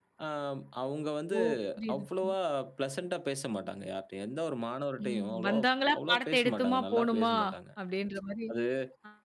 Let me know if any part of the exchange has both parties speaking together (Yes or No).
Yes